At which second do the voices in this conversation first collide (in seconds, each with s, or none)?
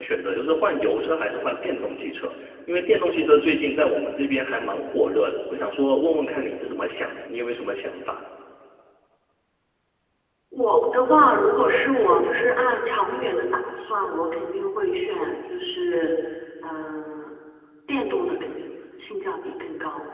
none